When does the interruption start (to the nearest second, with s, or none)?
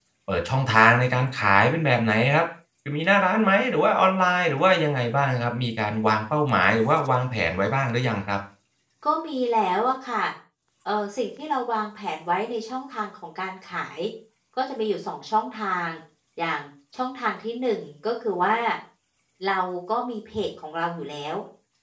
none